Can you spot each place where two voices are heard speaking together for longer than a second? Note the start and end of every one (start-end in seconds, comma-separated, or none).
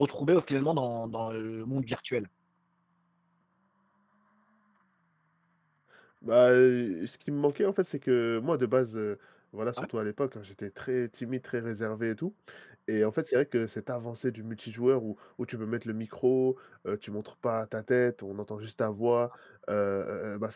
none